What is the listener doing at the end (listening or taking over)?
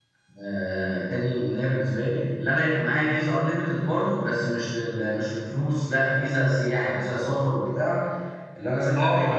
listening